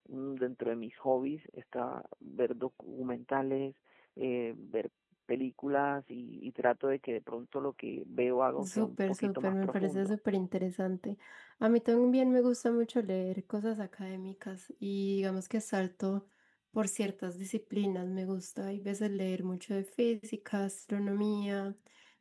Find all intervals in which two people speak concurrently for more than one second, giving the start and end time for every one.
8.6-10.2

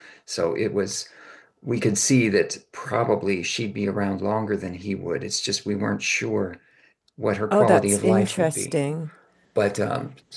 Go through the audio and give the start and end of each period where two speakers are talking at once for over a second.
7.5-8.7

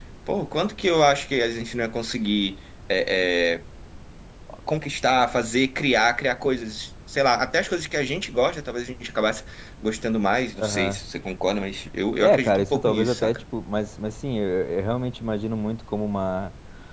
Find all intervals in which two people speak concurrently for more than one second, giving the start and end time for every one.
12.2-13.4

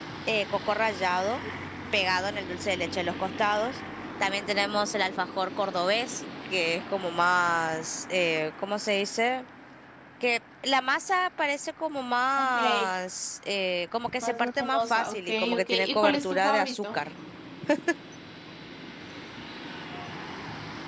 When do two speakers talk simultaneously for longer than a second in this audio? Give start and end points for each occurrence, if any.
14.2-17.0

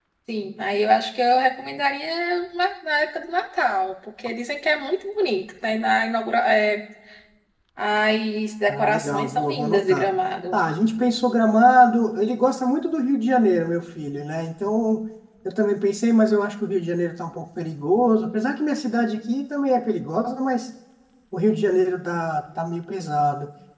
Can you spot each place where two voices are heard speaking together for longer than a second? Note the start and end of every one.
8.7-10.1

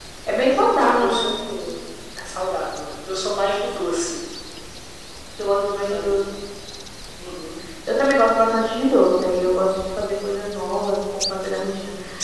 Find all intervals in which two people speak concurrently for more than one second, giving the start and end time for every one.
none

